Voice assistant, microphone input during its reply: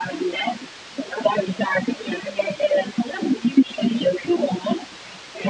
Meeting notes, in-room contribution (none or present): none